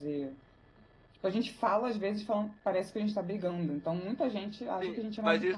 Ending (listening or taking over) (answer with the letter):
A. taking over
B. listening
A